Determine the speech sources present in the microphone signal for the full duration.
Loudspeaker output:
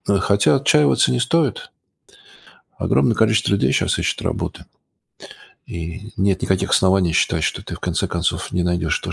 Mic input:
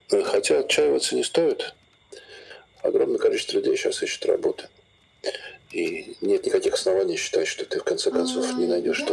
both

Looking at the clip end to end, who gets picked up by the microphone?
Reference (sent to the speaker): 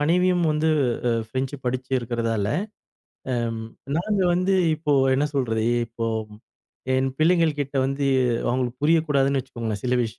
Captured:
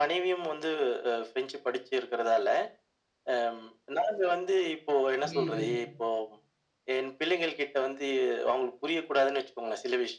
both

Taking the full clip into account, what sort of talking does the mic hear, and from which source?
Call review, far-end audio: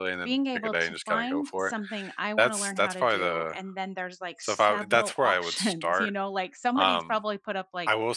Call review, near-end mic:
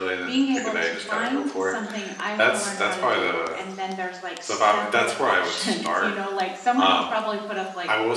echo only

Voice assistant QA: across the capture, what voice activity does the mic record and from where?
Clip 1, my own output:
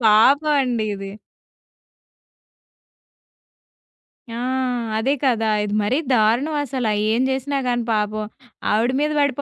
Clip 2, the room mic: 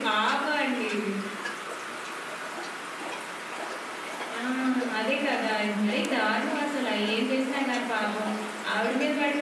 echo only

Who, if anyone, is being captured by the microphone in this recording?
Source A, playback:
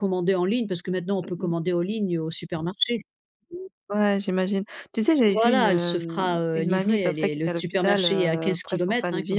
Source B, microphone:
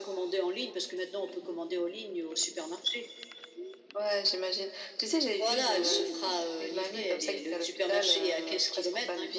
both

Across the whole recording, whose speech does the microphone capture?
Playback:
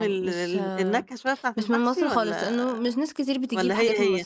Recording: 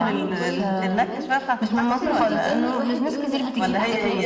both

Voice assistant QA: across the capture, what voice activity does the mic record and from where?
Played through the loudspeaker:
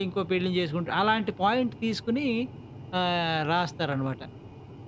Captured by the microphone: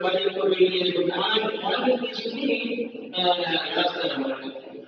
echo only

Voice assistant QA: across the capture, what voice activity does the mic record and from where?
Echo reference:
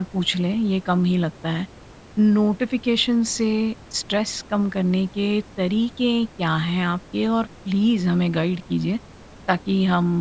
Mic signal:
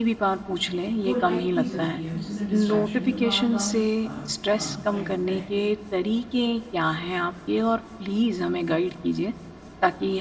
both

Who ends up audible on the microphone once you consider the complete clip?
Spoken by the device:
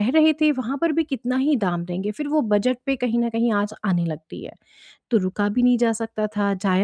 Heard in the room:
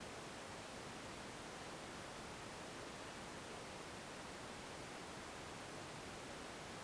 neither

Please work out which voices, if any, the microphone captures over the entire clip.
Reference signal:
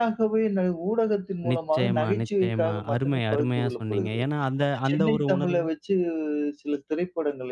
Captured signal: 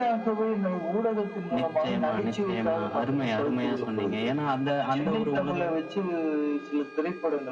echo only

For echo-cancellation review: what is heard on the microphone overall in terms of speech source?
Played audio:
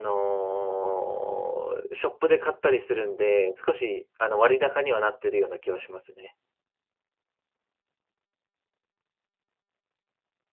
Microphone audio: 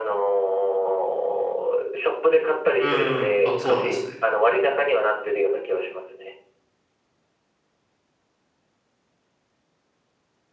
both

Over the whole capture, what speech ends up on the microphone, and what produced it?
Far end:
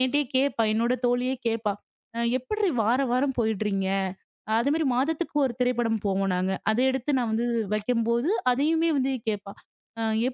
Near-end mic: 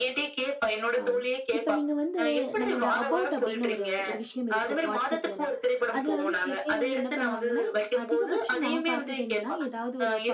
both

